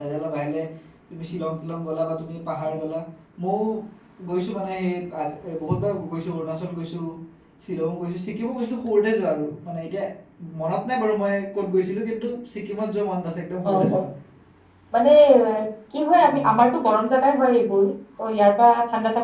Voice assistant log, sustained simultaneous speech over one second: none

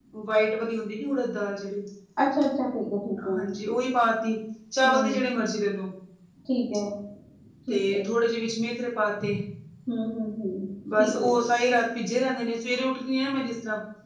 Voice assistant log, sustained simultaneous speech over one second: none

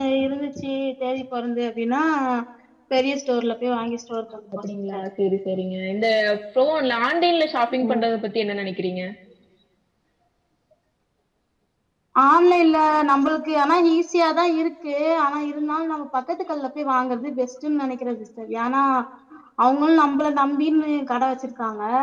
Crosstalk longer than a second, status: none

